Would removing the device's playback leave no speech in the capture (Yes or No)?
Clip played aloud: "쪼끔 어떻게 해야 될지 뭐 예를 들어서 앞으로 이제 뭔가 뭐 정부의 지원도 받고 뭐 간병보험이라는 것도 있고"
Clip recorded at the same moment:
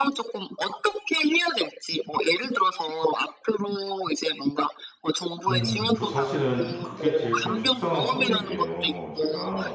No